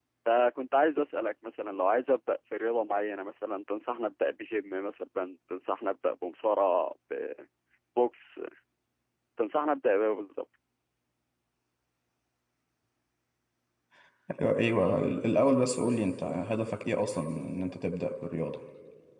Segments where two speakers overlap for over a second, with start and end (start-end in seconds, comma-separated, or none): none